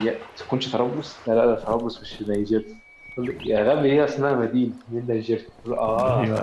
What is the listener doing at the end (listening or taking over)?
listening